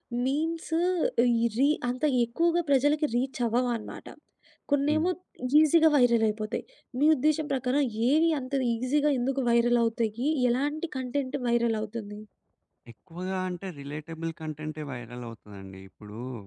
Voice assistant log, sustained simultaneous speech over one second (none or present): none